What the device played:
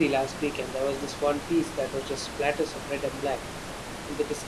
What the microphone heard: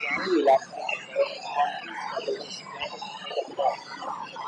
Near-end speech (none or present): none